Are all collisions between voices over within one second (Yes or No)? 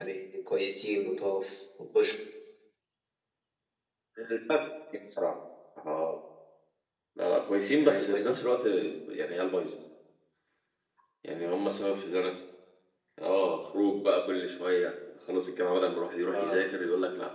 Yes